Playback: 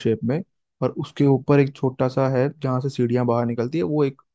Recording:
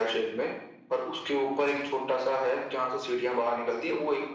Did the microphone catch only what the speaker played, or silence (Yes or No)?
Yes